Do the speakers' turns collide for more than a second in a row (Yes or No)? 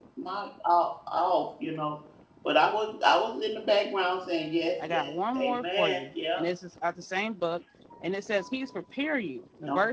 Yes